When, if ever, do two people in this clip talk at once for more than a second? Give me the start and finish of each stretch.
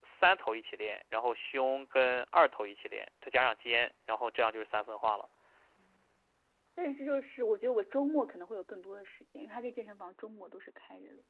none

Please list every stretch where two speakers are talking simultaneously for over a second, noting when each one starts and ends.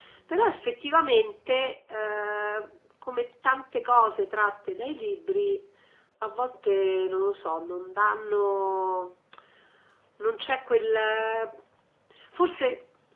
none

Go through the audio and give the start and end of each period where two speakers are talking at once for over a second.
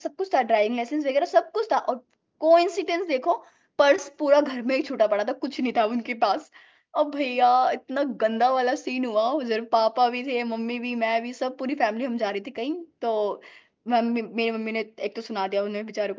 none

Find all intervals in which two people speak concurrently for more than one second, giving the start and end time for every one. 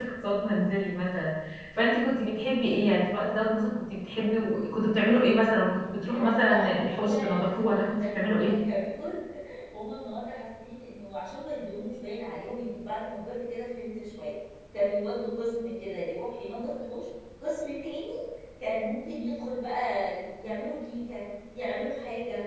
6.1-8.6

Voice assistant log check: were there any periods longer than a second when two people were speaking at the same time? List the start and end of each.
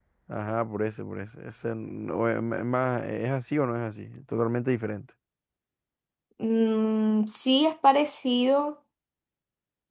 none

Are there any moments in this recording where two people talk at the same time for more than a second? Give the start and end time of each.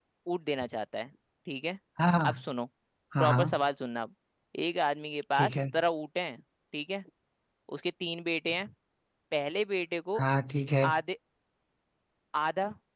none

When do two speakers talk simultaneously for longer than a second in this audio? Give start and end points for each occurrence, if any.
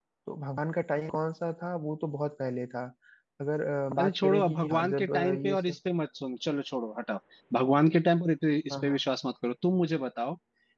4.0-5.6

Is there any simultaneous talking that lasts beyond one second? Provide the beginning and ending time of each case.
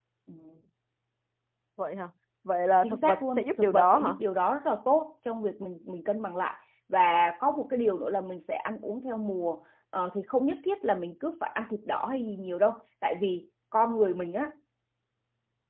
2.8-4.1

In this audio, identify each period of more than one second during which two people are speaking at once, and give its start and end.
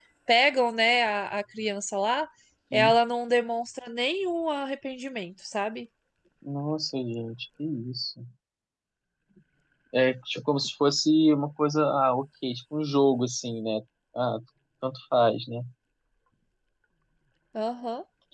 none

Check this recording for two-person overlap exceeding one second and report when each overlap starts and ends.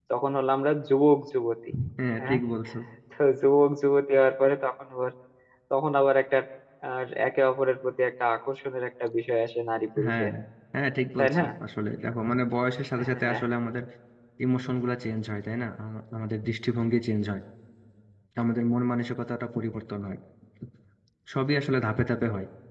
none

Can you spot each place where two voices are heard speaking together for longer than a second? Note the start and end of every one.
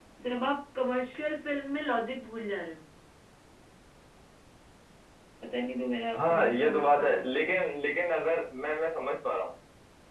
6.1-7.6

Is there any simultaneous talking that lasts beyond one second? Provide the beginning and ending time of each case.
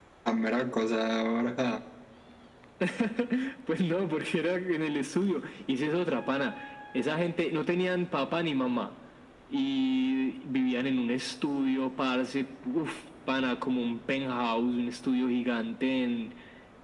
none

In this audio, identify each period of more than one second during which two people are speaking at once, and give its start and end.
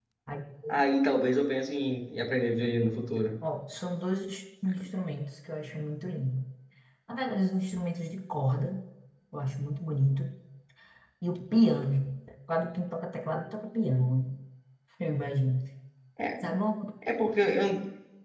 none

